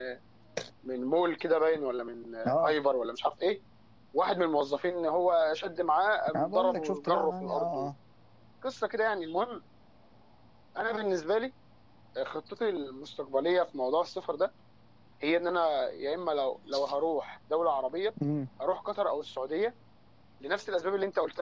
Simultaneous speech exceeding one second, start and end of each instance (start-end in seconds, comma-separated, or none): 6.3-7.9